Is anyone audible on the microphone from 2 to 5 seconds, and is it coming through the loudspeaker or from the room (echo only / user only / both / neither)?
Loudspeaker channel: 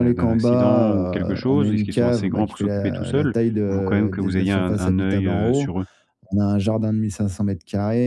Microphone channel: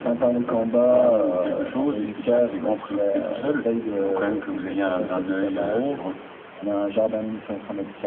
echo only